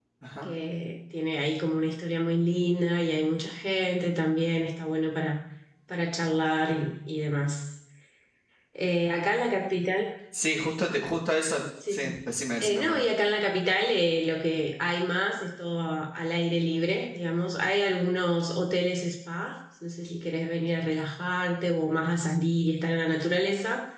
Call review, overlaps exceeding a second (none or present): none